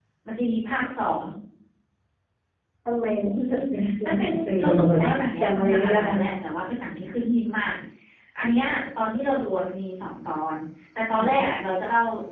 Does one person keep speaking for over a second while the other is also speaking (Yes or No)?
Yes